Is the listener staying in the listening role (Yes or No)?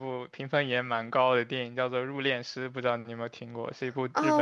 No